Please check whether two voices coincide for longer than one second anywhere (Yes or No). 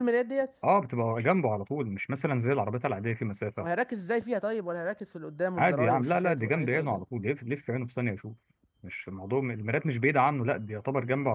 Yes